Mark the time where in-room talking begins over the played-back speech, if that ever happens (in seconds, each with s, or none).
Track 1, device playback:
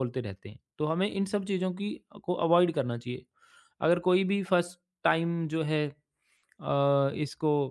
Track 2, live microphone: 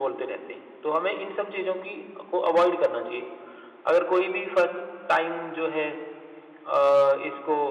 none